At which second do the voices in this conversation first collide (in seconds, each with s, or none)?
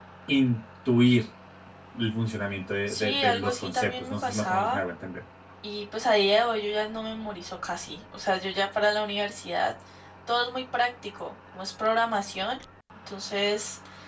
2.9 s